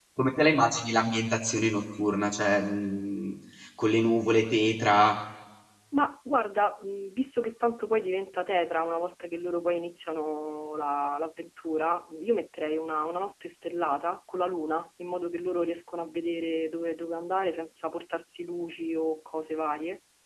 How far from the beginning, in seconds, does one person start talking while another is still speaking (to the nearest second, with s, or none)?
none